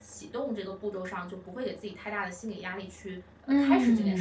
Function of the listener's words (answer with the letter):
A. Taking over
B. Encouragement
A